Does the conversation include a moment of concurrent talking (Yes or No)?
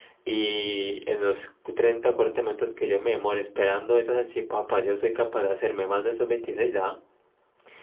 No